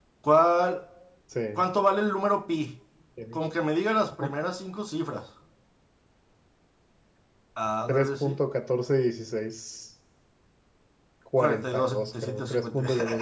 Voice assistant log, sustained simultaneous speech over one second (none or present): present